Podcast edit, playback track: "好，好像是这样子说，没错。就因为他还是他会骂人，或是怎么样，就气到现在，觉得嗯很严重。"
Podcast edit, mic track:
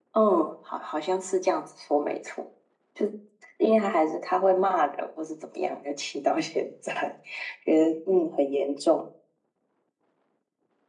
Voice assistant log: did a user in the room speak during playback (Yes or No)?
No